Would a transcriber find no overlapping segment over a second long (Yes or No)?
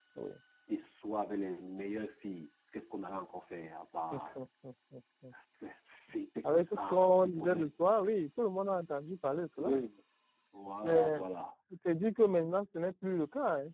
No